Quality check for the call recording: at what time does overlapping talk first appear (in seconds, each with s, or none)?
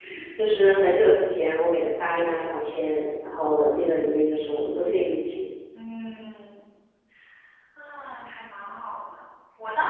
none